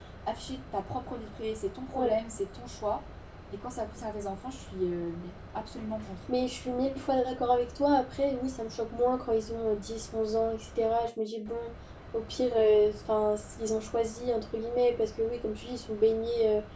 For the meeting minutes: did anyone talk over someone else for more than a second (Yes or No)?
No